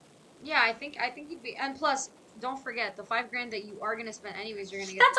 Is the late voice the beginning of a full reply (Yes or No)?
Yes